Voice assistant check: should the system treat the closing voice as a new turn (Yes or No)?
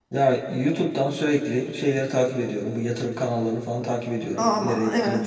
Yes